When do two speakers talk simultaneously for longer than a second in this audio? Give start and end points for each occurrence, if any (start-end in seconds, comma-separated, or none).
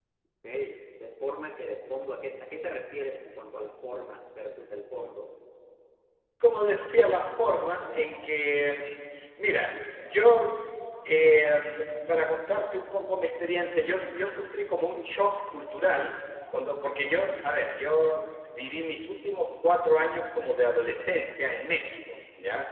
none